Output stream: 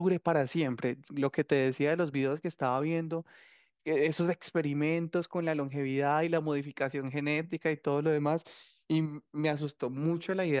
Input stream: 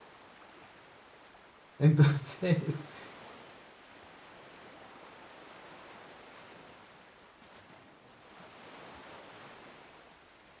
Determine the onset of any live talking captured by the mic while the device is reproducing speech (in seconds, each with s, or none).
1.8 s